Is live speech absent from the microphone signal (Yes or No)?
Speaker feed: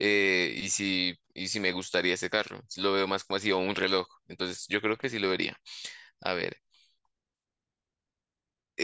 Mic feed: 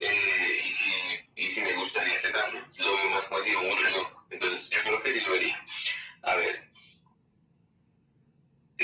Yes